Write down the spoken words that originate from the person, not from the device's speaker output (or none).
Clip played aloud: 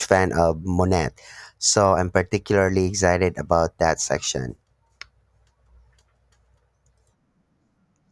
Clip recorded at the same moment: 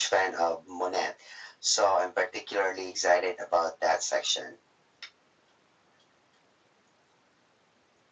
none